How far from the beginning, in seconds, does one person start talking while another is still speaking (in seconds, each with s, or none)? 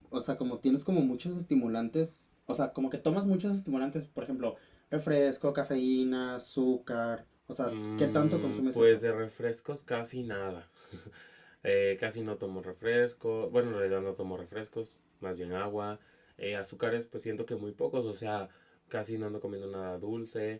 7.7 s